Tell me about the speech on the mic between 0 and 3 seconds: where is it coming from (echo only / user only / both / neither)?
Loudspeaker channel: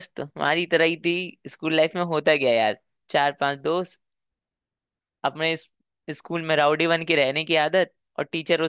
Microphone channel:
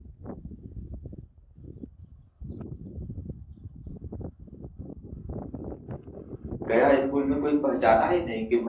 neither